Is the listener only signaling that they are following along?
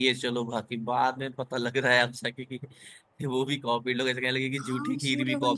No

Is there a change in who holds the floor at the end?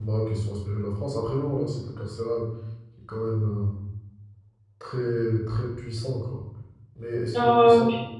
Yes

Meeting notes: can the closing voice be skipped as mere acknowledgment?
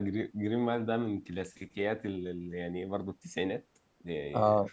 Yes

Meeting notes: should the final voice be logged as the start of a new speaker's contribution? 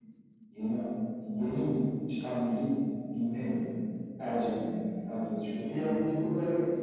Yes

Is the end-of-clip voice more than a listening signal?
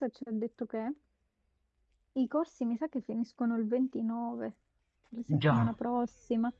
No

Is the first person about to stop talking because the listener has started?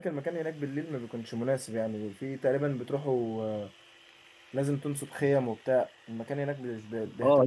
Yes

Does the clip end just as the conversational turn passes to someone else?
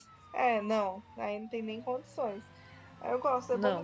No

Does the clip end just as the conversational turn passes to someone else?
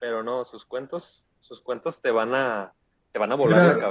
Yes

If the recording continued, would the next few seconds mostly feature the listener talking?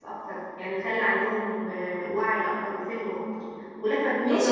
No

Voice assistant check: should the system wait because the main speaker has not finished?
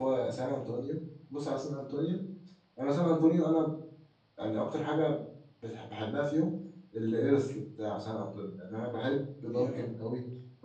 Yes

